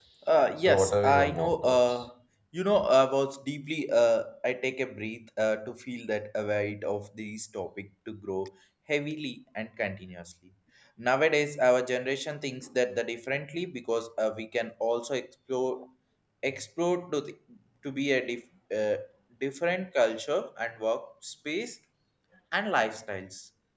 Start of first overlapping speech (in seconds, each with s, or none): 0.6 s